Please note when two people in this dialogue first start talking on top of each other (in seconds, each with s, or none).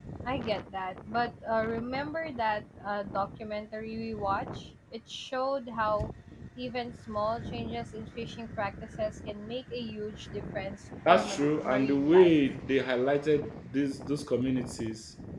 11.1 s